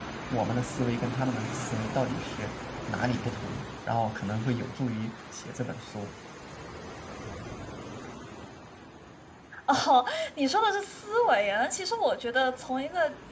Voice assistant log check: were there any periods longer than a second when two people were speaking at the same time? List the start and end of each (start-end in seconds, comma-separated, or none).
none